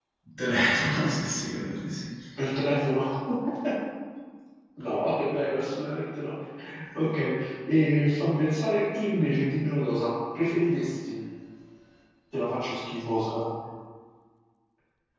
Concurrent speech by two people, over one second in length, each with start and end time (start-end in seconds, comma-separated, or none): none